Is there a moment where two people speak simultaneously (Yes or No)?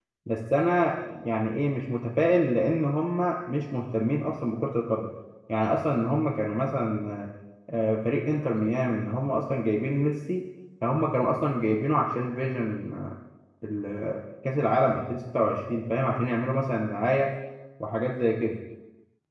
No